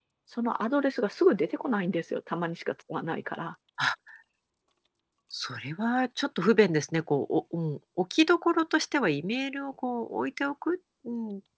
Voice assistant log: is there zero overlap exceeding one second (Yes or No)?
Yes